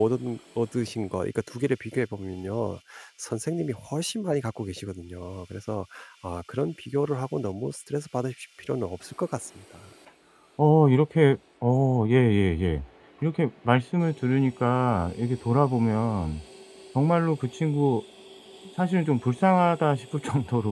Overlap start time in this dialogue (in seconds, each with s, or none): none